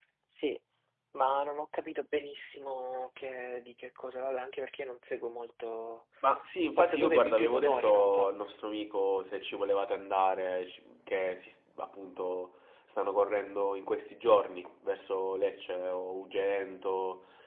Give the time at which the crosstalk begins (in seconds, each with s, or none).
6.8 s